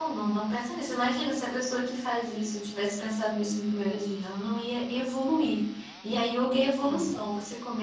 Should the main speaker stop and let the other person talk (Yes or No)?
No